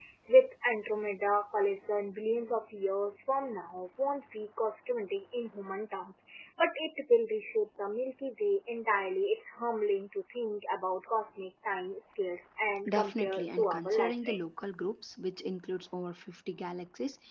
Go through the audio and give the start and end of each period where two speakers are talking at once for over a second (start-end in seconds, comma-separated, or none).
12.8-14.6